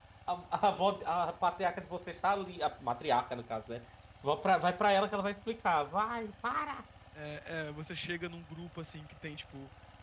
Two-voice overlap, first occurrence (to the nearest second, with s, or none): none